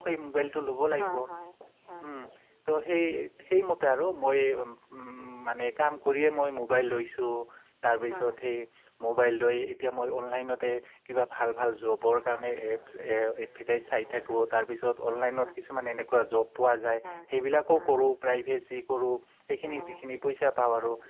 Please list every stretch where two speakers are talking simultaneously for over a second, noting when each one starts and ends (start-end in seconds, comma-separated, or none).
none